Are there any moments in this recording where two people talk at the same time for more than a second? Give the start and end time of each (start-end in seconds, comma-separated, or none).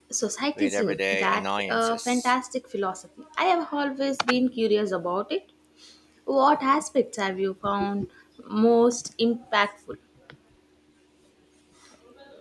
0.6-2.3